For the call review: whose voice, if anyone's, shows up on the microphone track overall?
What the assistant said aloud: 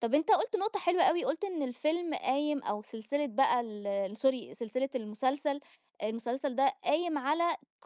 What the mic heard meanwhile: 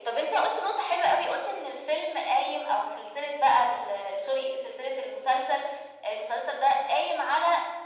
echo only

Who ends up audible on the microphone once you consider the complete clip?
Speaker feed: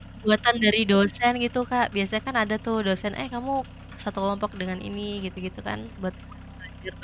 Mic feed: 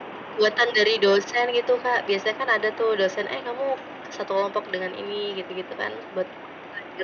echo only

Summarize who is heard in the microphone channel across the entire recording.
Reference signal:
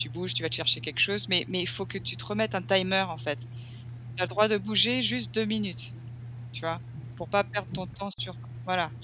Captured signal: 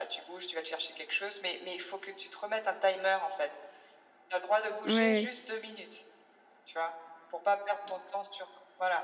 both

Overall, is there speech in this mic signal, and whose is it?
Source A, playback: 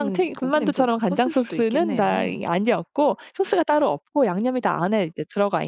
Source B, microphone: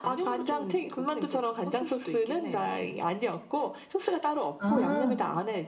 both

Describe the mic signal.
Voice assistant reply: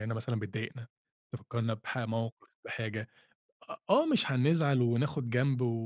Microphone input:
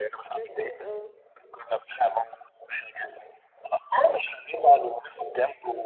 both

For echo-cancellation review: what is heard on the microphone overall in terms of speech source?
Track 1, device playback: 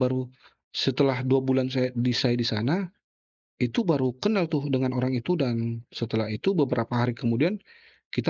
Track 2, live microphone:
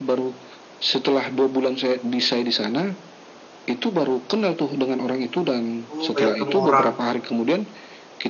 both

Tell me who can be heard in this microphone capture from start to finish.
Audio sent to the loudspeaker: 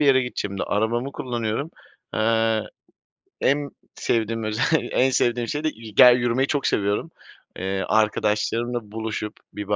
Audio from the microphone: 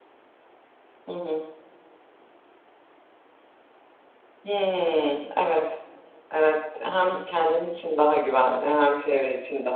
user only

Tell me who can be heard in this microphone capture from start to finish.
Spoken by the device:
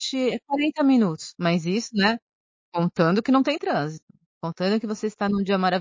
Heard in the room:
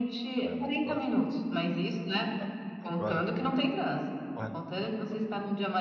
both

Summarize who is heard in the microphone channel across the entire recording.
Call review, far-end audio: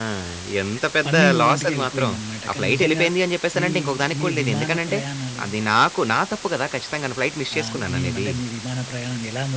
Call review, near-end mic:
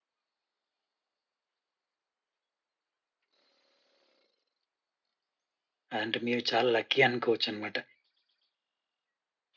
user only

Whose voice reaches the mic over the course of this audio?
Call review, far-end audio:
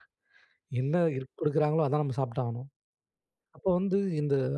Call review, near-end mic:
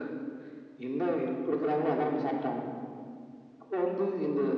echo only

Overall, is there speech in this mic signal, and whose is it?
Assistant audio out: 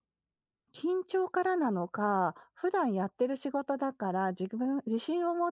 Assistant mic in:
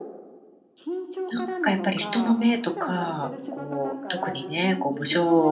both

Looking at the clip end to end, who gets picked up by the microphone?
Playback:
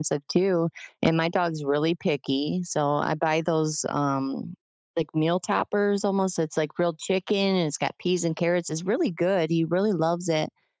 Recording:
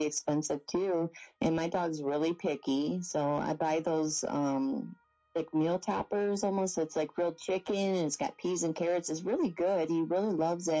echo only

